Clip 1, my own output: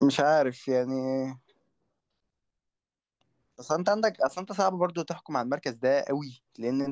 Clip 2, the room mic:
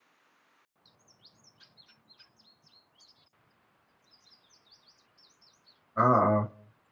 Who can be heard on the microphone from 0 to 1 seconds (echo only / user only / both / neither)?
neither